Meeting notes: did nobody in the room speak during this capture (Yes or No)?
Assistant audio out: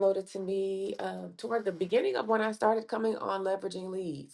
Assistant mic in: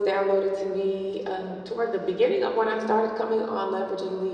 Yes